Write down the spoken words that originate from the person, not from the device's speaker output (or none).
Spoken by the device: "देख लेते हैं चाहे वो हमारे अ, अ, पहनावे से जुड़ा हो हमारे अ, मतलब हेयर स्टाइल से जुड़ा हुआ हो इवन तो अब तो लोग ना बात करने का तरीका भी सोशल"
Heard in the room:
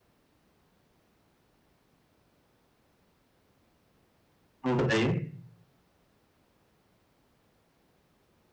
हुँ, बताइए।